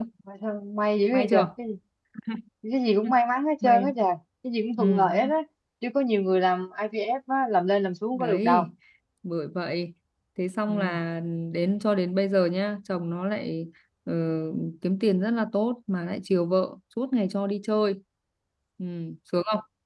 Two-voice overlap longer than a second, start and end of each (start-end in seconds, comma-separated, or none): none